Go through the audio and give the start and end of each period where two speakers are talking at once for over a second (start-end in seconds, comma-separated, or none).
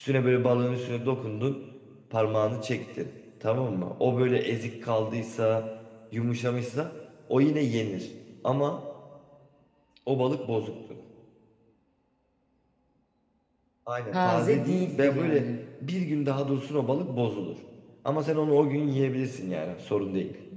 14.1-15.4